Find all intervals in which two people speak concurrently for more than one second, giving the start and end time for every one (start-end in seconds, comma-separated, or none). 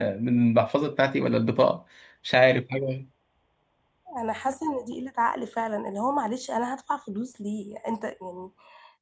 none